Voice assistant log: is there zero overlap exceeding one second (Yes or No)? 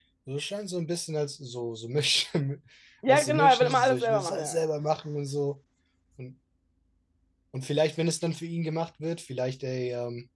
No